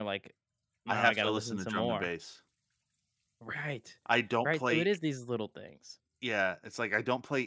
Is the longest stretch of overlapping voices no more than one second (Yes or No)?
No